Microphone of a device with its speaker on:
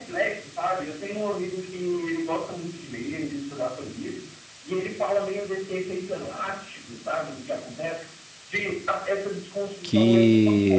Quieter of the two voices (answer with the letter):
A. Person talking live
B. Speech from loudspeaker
B